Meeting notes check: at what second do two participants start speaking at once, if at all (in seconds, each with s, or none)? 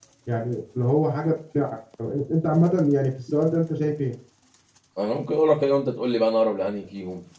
none